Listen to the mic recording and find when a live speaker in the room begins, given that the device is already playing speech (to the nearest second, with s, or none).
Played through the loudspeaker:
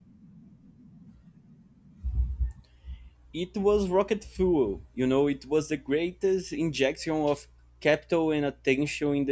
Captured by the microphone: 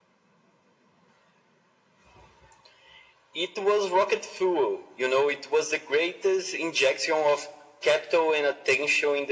none